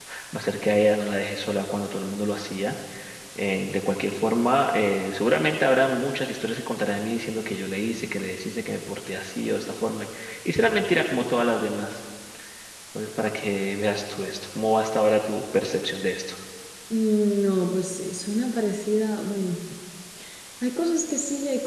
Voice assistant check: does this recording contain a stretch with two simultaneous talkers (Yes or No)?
No